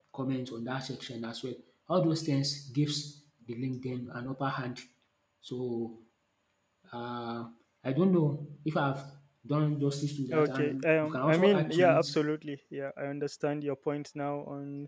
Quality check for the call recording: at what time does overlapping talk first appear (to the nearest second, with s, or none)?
10 s